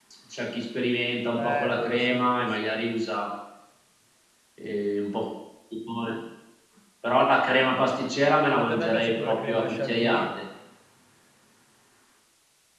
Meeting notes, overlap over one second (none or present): present